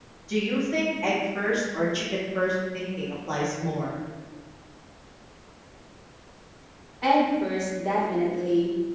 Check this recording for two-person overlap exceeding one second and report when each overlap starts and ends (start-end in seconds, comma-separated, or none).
none